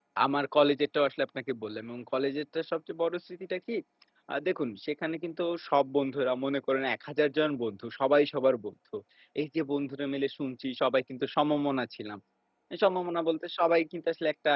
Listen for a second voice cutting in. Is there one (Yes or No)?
No